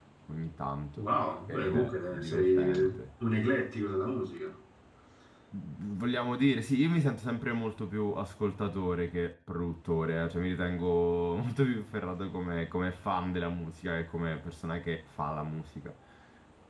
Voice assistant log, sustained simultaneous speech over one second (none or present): present